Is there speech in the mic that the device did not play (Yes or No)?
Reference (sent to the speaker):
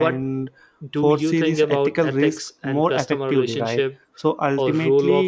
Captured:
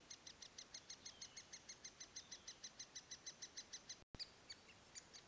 No